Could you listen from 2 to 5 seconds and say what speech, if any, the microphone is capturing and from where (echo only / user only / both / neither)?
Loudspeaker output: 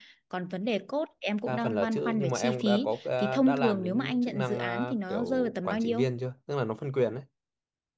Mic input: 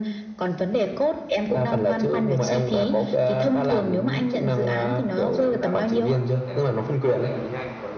echo only